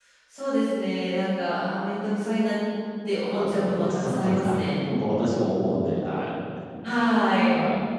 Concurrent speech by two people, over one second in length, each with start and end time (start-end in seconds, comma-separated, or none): 3.3-4.8